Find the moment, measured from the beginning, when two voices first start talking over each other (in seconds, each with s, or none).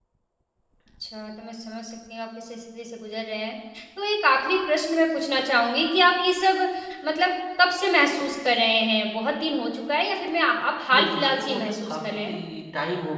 10.9 s